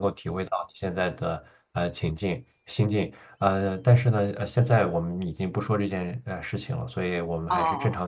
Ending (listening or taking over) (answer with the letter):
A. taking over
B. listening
B